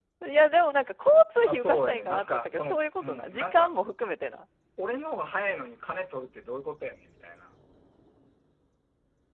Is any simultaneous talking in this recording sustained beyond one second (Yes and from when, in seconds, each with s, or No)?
Yes, from 1.5 s